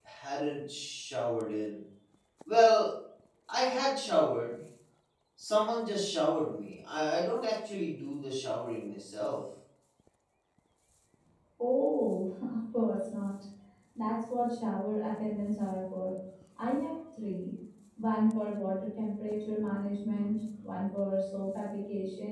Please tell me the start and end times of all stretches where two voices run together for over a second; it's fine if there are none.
none

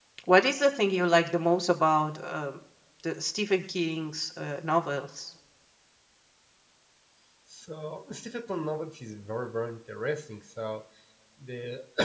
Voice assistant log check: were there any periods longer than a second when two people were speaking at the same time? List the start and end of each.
none

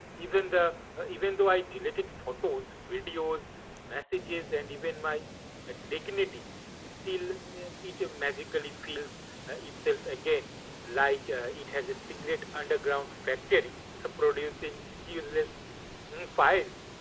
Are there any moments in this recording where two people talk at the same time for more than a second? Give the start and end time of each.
none

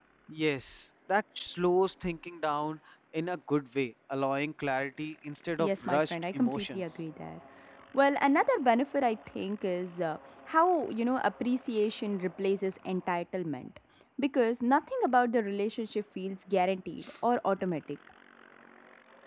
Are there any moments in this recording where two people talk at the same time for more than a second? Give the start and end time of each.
5.6-7.0

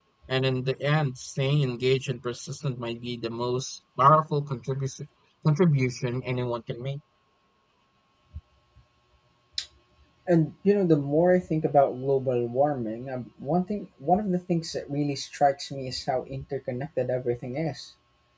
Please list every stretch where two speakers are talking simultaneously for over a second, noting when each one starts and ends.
none

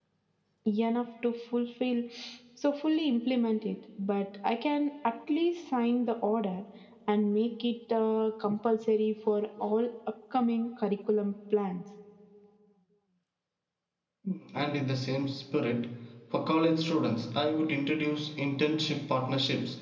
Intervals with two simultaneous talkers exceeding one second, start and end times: none

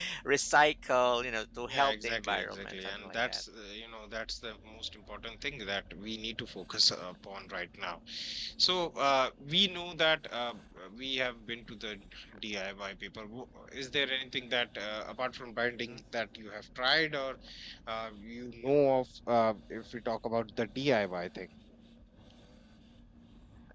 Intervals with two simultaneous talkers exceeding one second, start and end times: 1.7-3.4

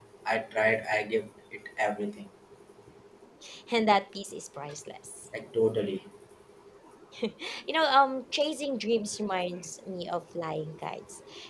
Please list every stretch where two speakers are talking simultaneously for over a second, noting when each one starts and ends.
none

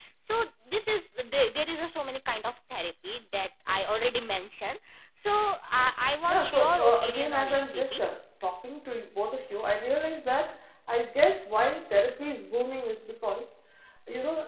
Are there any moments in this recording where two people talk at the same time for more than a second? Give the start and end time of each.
6.3-8.0

